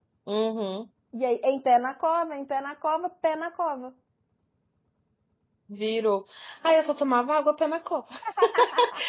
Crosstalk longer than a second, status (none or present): none